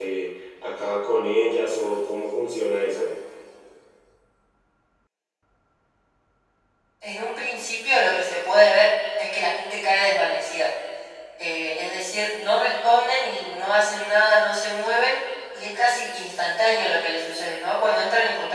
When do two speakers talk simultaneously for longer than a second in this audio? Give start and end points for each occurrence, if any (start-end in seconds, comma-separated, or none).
none